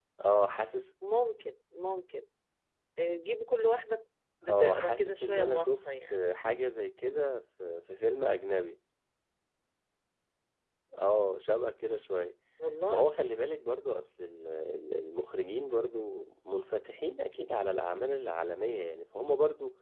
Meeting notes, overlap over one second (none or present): present